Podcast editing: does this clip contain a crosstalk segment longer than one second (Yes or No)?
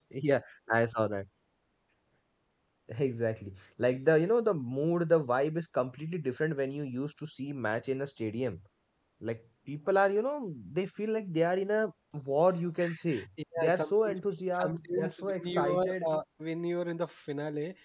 Yes